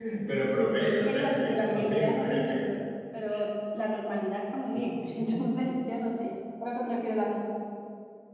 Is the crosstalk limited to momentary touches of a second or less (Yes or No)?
No